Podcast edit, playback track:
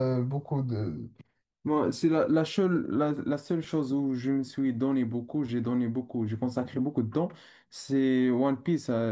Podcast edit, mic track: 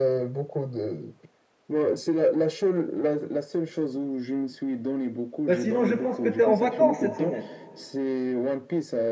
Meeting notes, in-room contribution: present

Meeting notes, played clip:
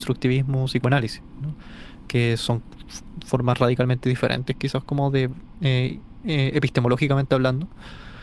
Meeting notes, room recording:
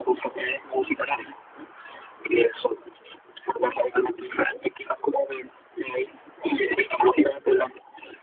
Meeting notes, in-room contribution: none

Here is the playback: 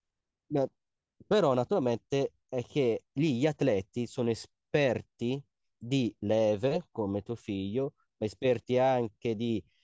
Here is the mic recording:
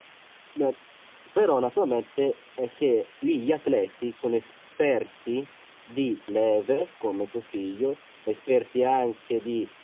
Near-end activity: none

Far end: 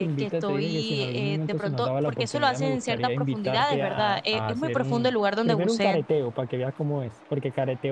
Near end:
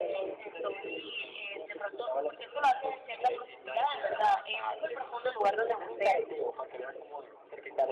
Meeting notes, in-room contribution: none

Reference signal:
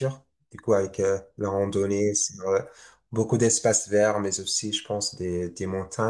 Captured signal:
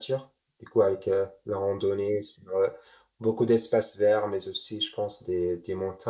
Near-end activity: none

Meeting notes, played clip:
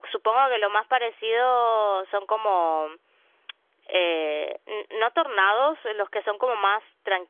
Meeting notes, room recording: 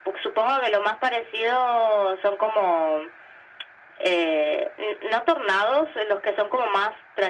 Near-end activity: none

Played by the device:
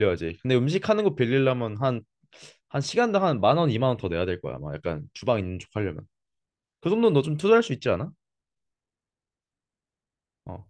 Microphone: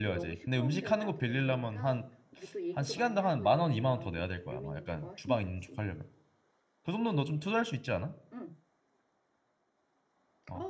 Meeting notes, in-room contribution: present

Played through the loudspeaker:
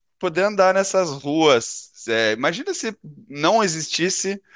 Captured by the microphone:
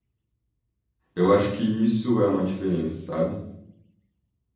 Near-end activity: present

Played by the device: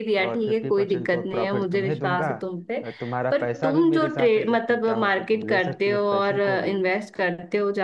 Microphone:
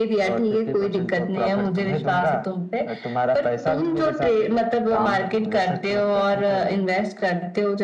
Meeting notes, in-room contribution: present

